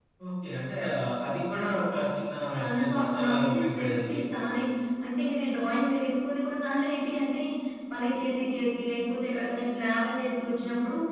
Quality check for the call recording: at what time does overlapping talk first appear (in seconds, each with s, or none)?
2.7 s